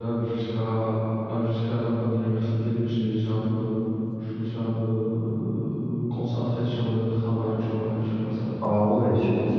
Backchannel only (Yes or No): No